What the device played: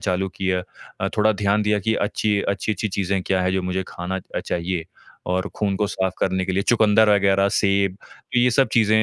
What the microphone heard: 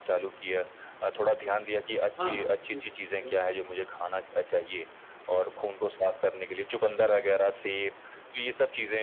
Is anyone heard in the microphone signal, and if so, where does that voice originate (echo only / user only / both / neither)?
both